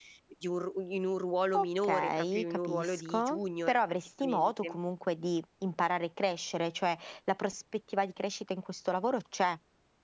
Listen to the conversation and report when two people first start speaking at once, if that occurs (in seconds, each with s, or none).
1.5 s